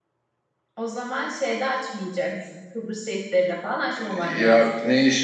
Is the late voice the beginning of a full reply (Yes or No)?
Yes